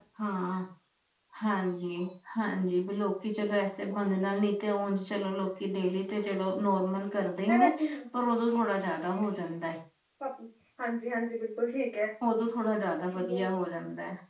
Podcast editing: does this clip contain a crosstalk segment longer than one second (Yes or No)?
No